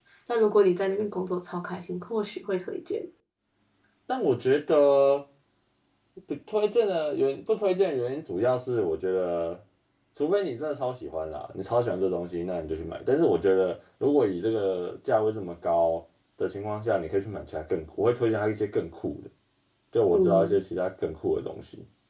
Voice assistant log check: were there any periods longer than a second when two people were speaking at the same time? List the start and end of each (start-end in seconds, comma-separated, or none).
none